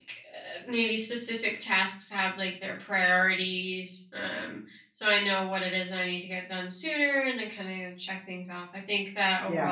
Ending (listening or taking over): listening